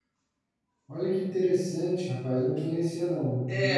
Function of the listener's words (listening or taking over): taking over